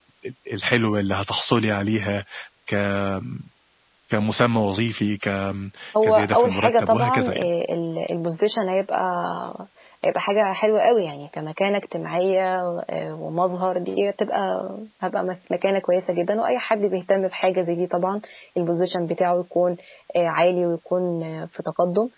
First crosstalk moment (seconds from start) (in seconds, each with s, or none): 6.0 s